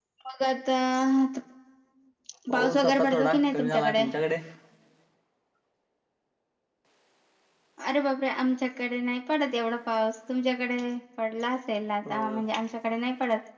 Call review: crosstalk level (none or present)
present